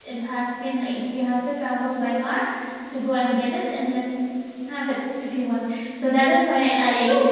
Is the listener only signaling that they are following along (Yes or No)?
No